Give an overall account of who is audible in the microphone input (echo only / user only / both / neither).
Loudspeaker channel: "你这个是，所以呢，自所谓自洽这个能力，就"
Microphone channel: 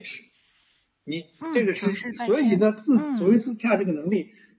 both